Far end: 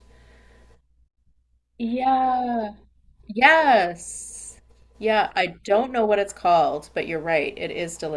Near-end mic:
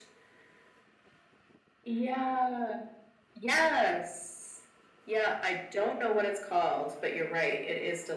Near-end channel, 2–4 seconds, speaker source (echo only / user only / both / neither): echo only